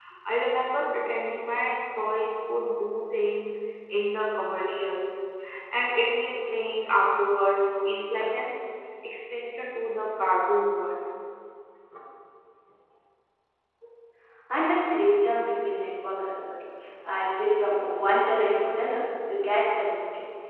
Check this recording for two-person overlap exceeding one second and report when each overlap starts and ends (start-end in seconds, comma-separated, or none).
none